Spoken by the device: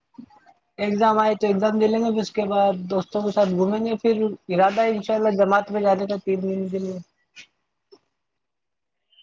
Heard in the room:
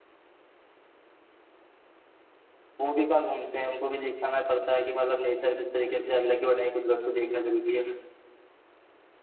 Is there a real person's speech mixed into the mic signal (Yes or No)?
Yes